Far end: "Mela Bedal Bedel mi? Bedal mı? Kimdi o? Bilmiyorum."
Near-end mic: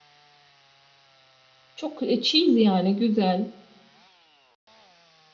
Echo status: none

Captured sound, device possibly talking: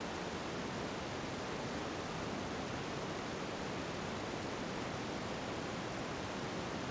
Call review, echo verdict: none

